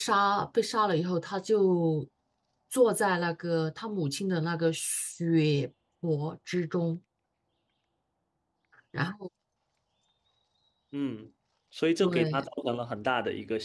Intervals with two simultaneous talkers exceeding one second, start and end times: none

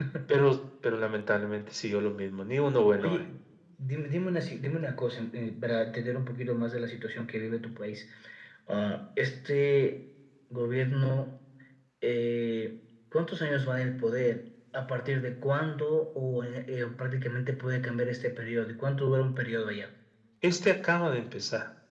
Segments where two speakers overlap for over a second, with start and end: none

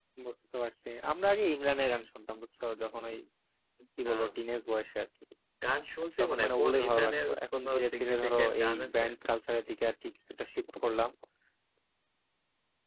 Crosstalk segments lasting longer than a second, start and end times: 6.2-9.0

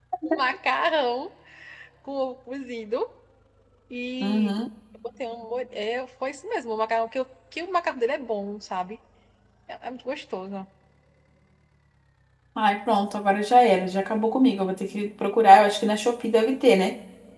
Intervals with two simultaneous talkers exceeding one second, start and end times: none

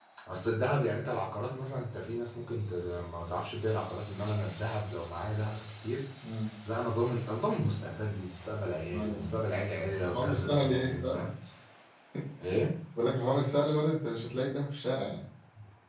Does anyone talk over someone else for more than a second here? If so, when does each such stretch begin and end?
10.0-11.2

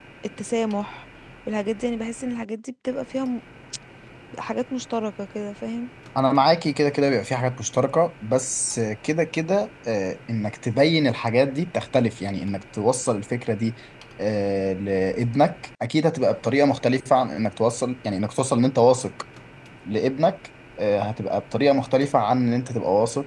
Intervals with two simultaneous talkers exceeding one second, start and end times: none

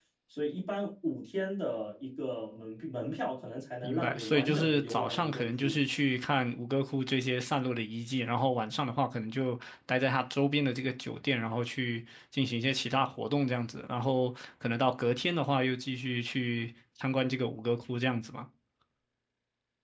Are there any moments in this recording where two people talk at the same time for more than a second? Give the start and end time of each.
3.8-5.8

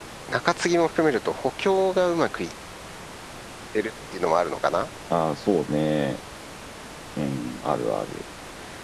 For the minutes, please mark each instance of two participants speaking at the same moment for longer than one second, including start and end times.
none

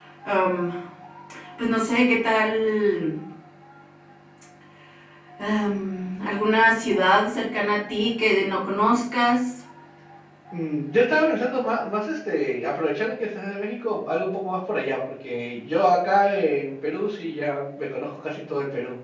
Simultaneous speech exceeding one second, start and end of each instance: none

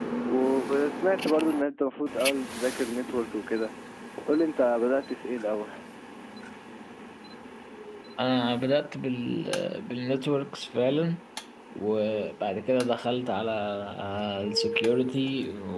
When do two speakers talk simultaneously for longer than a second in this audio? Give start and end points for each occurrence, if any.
none

